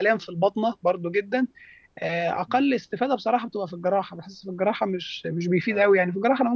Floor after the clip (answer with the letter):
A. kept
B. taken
A